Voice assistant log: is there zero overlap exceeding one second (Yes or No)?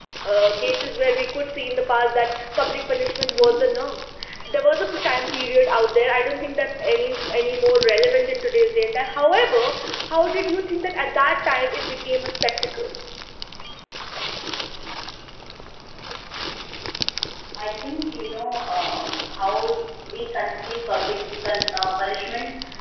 Yes